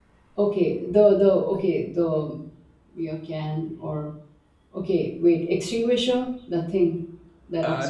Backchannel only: No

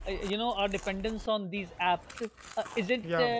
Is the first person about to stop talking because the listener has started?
No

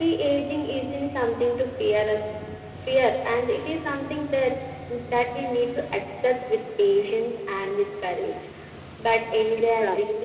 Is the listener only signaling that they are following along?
Yes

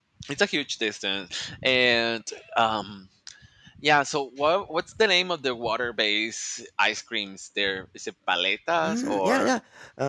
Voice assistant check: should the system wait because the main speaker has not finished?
No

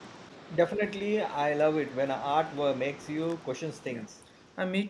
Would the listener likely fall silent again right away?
No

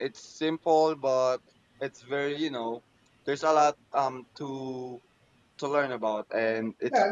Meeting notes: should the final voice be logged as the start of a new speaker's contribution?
Yes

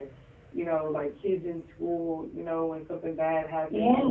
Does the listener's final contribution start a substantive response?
No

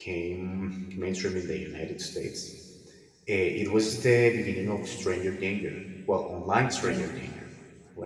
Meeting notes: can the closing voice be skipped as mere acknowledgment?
Yes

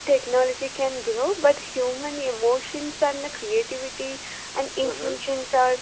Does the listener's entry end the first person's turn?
No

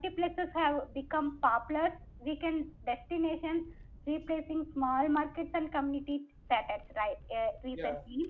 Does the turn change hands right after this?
No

